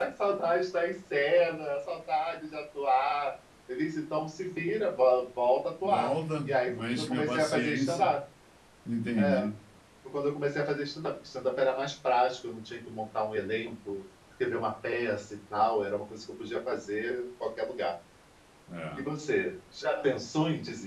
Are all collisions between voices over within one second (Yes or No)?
No